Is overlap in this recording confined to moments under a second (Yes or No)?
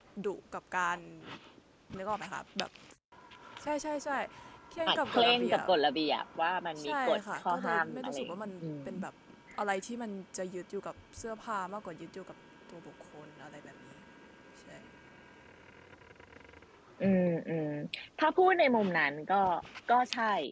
No